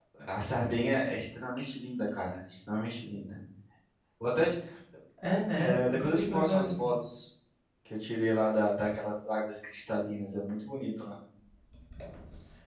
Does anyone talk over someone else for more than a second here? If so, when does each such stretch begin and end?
5.6-6.9

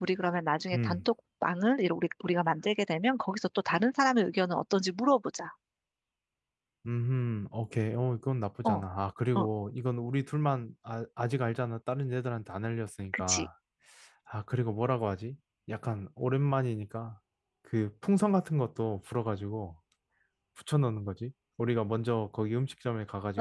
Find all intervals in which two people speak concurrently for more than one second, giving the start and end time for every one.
none

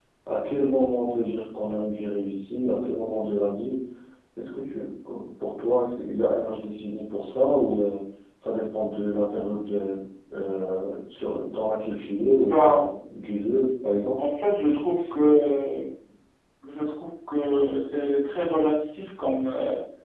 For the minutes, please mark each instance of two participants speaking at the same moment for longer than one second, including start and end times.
none

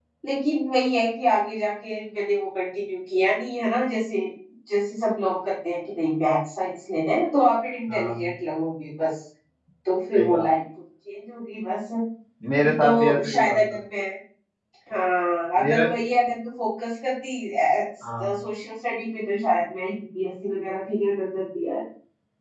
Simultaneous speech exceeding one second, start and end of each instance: 12.6-13.8

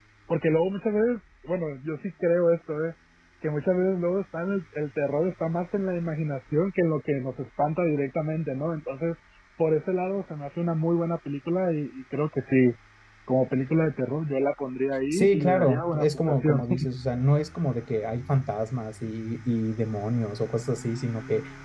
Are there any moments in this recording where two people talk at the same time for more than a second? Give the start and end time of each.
15.1-16.6

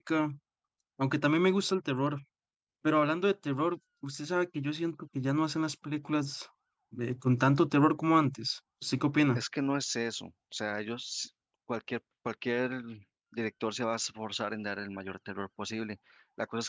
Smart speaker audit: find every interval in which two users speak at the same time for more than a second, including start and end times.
none

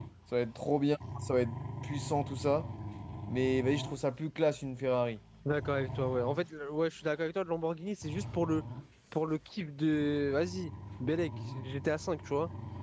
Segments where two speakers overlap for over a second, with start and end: none

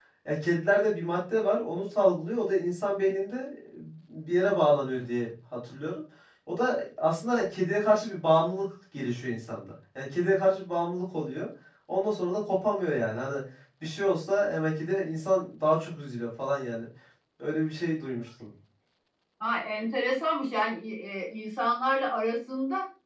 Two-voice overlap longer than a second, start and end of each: none

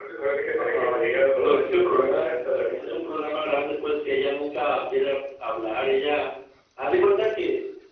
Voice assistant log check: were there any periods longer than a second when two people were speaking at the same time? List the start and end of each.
0.6-3.0

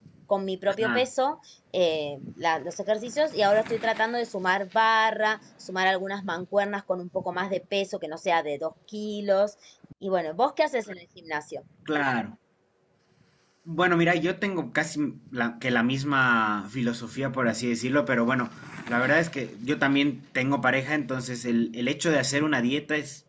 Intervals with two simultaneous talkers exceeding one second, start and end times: none

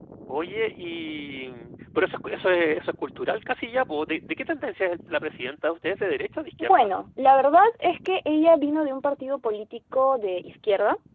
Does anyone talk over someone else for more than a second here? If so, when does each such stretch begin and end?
none

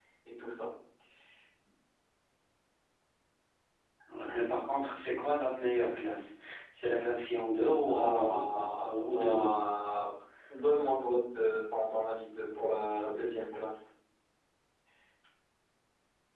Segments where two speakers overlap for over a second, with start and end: 7.8-9.6

